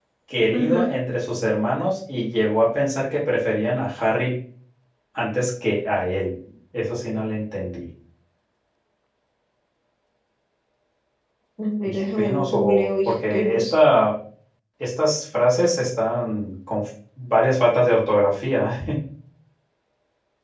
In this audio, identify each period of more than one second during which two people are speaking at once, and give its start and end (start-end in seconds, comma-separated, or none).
11.8-13.7